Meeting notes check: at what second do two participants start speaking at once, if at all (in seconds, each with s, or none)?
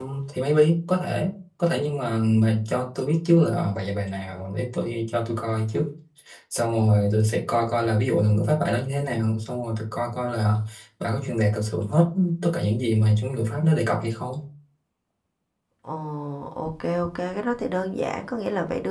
none